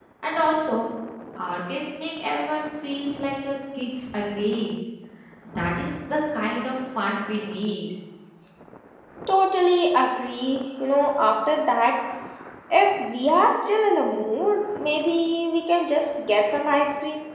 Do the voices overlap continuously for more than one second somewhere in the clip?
No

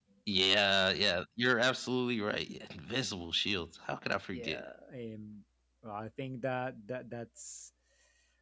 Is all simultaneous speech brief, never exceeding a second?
Yes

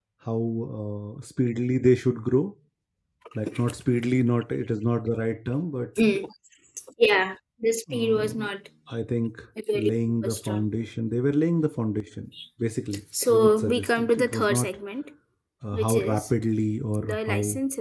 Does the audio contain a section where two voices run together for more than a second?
Yes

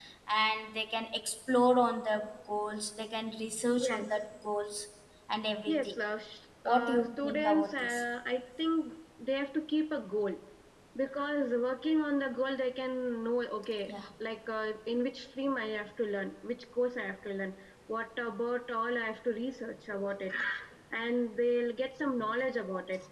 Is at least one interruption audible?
Yes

